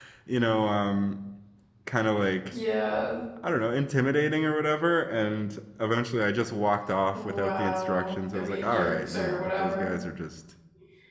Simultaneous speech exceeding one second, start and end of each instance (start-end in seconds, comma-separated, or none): 7.1-9.9